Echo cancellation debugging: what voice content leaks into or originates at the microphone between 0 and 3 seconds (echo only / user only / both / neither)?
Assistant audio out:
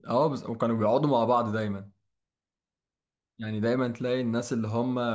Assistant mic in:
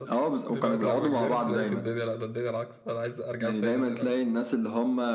both